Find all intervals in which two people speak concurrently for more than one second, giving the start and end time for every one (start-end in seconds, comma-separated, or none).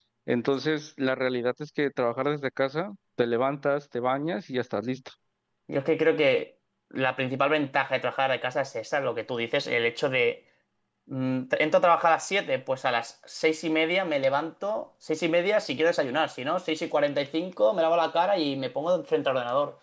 none